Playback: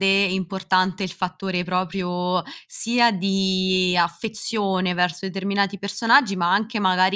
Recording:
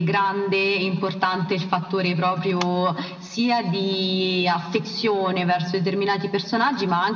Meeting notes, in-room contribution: none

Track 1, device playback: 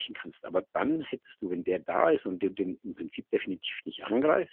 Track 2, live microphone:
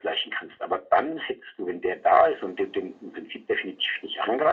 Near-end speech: none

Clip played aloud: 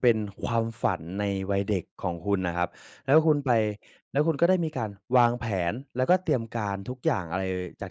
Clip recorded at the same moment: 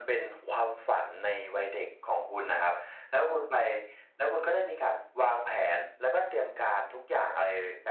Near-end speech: none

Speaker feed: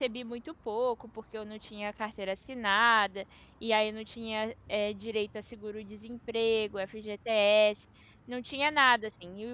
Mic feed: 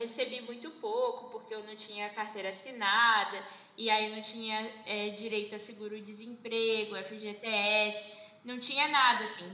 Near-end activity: none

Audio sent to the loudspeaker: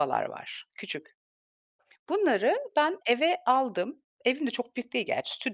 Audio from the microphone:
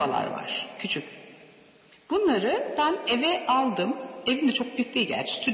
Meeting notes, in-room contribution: none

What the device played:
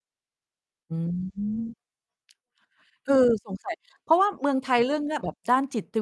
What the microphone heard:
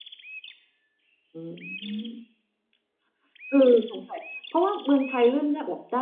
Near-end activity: none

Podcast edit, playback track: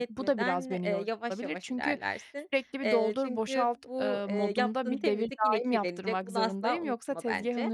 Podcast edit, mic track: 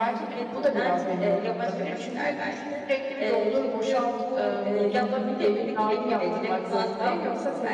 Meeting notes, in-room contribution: none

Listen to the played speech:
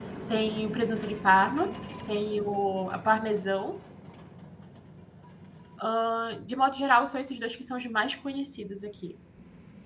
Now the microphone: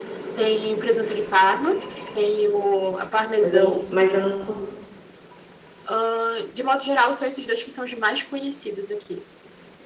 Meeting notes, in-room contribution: present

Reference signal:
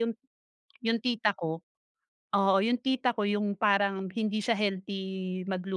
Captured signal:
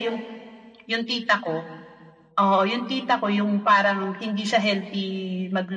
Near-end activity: none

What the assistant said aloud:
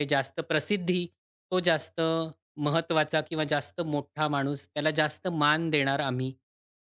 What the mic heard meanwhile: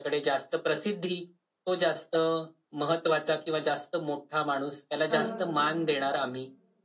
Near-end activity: present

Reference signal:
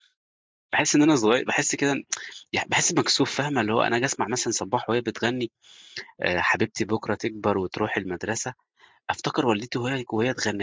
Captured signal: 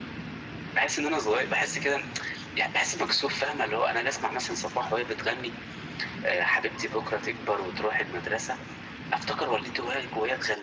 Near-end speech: none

